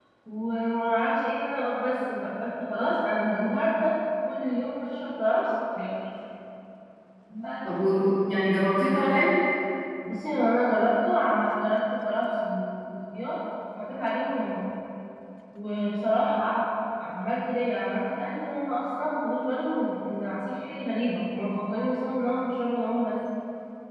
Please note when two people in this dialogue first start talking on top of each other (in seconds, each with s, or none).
none